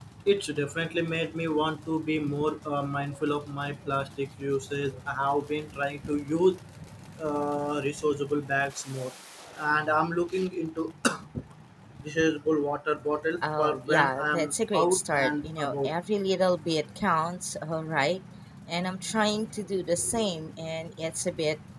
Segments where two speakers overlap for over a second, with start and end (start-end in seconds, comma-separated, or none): 13.6-15.9